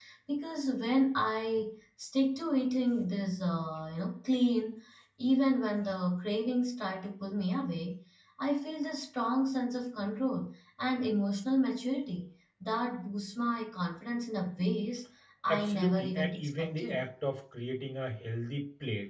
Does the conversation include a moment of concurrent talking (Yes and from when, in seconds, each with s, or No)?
Yes, from 15.5 s